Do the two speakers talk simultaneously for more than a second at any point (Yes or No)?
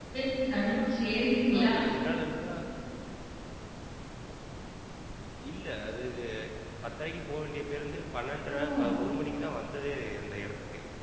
No